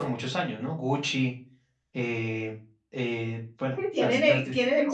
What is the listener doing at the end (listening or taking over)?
taking over